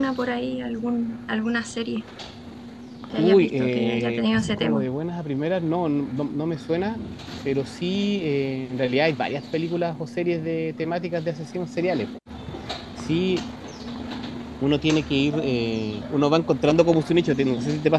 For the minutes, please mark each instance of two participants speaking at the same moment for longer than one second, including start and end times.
3.2-4.9

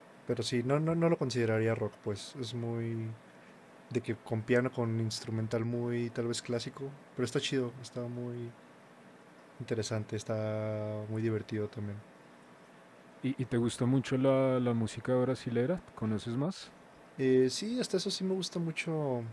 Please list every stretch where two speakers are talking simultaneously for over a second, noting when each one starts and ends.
none

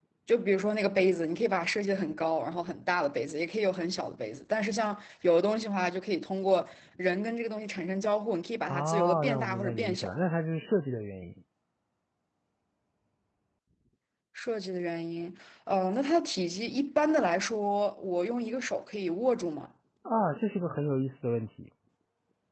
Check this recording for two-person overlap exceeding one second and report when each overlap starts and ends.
8.7-10.1

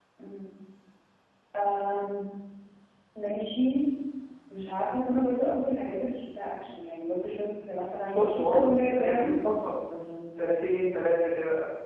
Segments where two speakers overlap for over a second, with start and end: 8.1-9.3

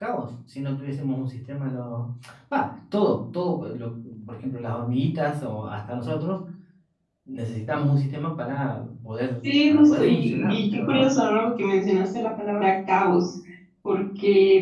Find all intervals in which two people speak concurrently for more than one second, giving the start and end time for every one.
9.7-11.2

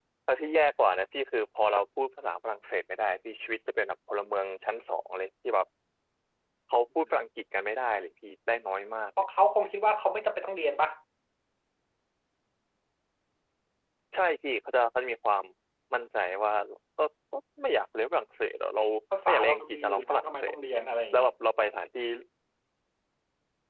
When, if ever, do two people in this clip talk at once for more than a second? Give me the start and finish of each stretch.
19.3-20.6

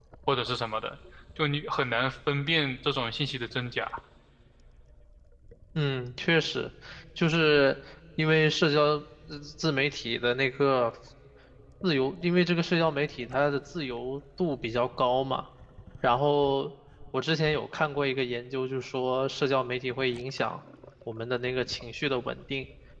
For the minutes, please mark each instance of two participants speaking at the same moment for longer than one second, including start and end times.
none

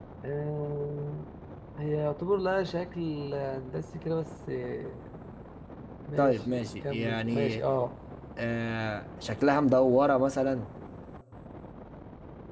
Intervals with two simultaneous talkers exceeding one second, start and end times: 6.2-7.6

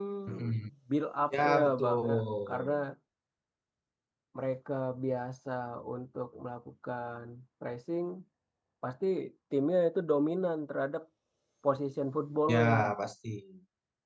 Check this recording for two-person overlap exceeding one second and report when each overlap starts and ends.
1.4-2.7

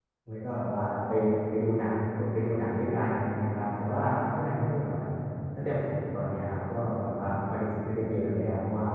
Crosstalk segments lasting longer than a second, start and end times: none

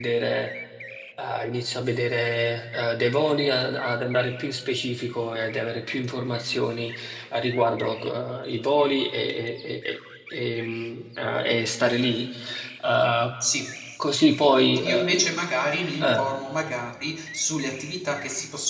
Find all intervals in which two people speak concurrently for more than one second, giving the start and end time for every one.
none

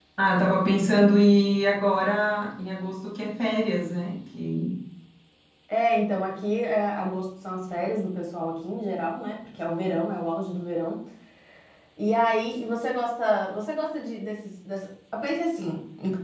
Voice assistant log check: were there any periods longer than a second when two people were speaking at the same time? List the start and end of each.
none

